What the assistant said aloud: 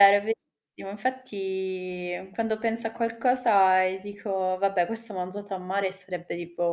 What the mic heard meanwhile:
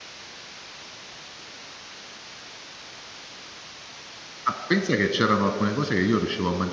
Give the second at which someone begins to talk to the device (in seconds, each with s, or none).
4.4 s